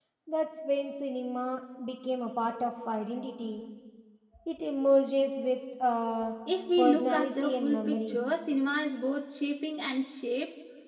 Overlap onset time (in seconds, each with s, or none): 6.8 s